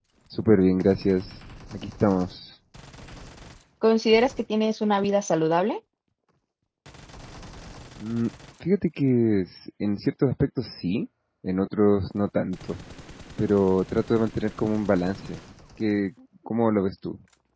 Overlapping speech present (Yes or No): No